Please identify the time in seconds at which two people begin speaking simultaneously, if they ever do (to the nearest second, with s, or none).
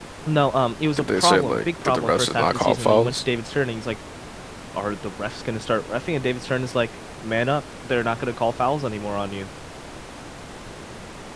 1 s